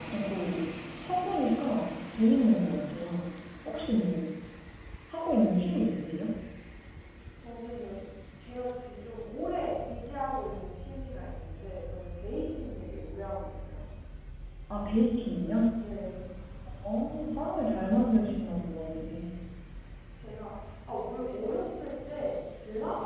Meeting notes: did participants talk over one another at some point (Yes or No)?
No